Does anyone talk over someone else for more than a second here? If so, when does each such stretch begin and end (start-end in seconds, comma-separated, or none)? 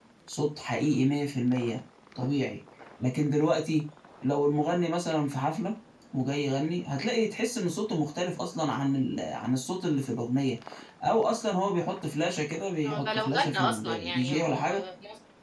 12.8-14.7